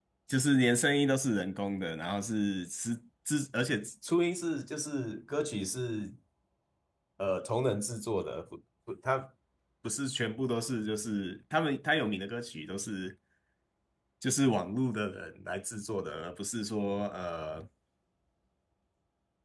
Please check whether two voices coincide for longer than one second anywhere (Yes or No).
No